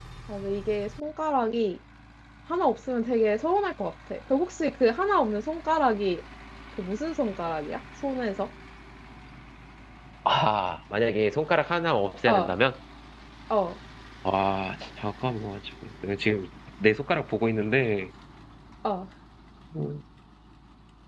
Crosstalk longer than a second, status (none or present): none